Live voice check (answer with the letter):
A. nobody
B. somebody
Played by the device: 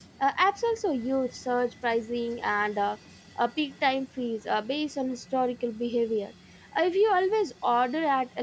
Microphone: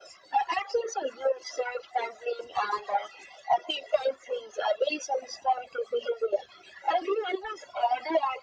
A